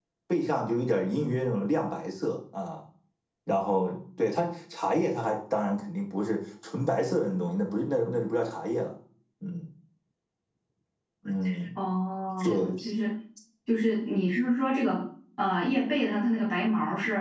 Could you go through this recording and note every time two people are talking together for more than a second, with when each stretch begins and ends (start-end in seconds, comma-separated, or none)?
none